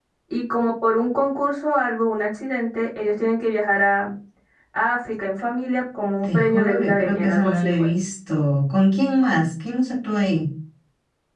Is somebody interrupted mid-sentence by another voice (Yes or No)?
Yes